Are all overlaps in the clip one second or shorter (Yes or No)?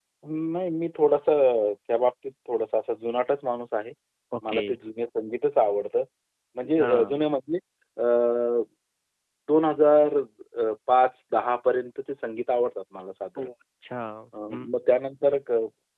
Yes